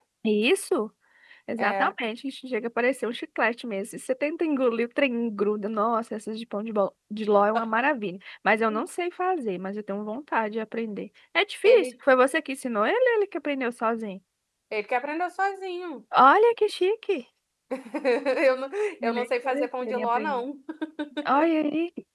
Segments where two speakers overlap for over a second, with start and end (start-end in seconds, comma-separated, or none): 19.0-20.4